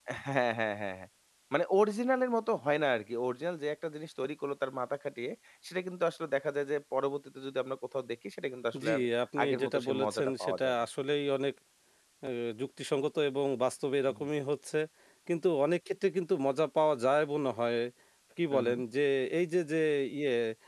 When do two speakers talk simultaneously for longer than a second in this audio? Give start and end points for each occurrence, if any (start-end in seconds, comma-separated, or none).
9.4-10.7